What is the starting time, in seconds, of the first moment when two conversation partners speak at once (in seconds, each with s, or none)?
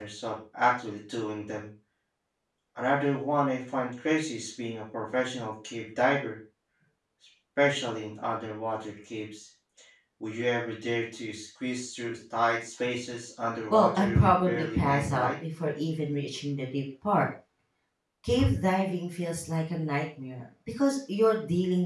13.7 s